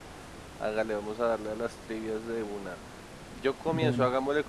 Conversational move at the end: listening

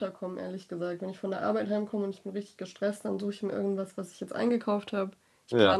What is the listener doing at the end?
listening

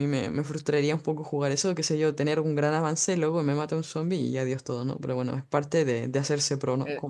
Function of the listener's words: taking over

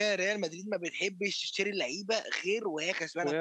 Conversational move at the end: listening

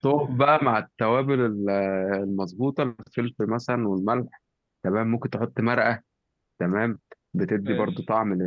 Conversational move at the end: listening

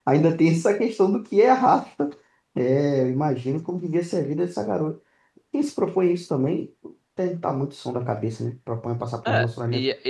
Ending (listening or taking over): taking over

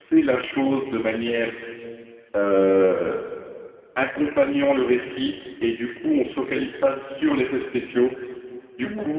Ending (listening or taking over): listening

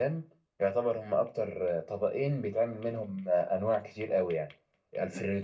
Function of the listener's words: listening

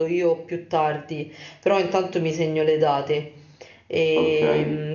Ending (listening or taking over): listening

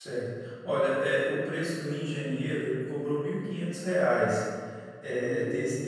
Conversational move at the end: listening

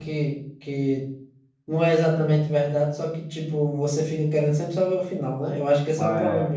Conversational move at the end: listening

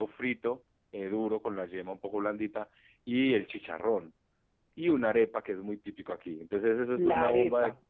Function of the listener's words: taking over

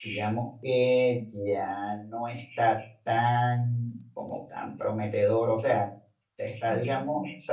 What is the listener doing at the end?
listening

